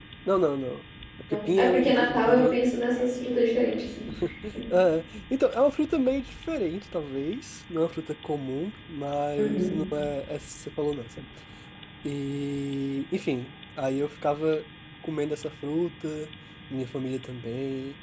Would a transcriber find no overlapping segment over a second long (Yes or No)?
No